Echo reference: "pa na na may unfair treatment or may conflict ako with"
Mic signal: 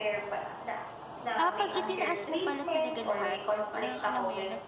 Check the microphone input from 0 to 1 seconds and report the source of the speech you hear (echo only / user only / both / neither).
echo only